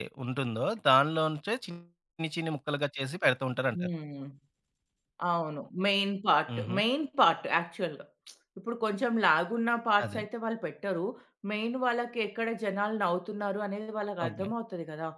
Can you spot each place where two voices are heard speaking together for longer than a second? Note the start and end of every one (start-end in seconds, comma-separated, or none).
none